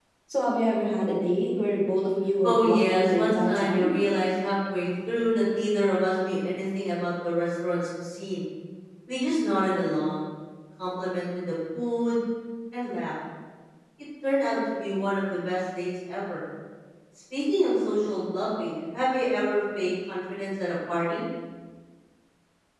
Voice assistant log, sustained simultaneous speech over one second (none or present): present